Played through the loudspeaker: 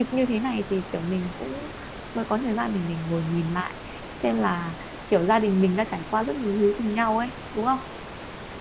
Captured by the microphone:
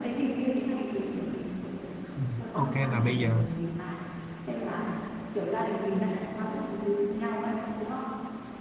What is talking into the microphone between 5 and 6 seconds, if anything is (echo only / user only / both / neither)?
echo only